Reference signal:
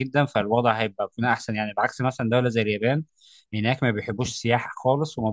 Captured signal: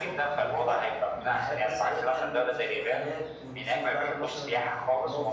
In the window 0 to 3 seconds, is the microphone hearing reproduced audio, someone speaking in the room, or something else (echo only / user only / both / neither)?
both